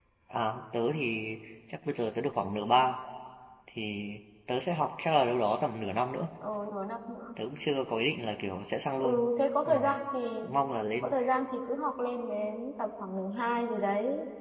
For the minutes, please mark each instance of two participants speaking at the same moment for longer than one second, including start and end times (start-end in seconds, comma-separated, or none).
none